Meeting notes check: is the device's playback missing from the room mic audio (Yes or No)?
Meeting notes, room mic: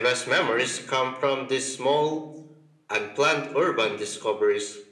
No